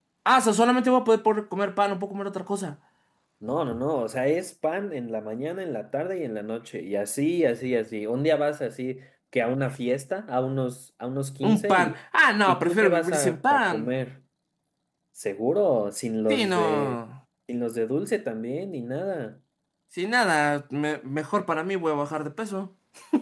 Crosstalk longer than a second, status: present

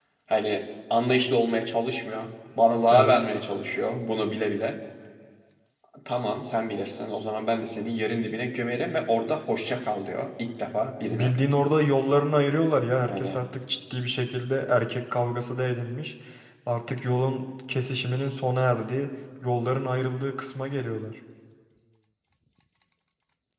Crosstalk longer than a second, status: none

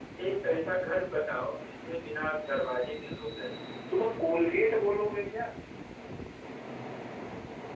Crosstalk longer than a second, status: none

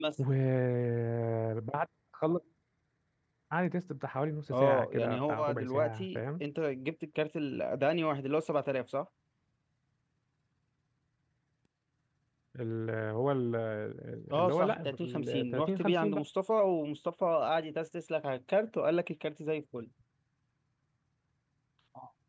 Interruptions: present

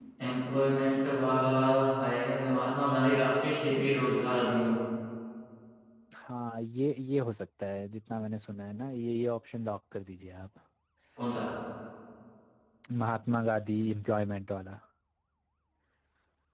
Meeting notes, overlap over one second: none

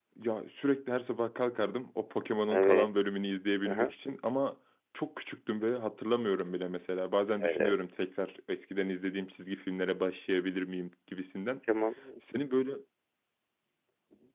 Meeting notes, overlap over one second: none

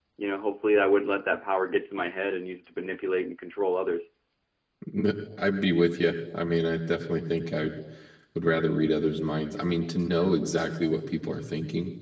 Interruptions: none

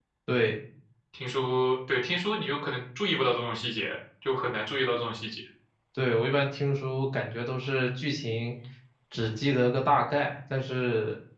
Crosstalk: none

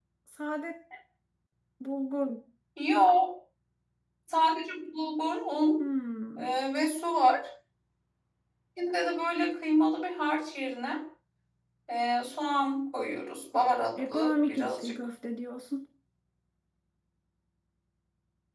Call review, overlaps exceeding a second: present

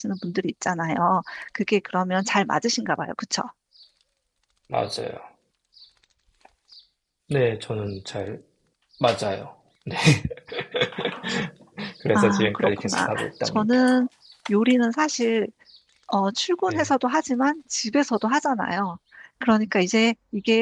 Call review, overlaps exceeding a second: present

